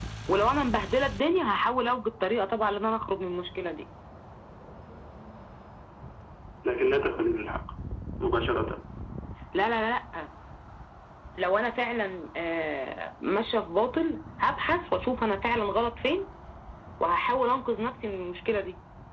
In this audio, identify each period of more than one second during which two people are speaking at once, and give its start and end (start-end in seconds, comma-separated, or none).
none